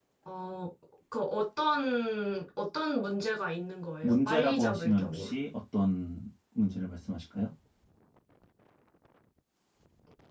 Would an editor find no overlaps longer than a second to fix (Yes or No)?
No